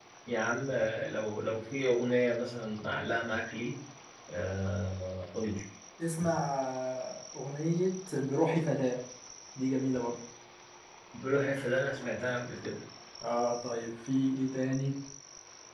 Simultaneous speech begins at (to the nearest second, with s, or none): none